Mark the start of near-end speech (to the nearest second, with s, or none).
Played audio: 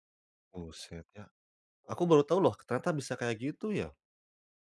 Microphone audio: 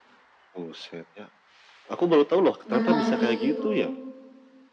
3 s